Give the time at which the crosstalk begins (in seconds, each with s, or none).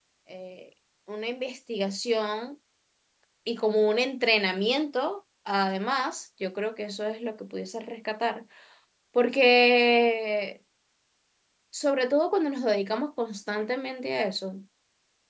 none